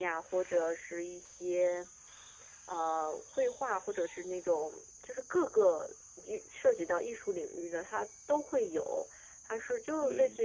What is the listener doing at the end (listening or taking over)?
listening